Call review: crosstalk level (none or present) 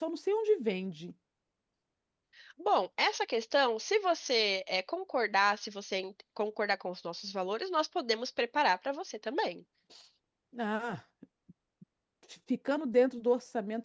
none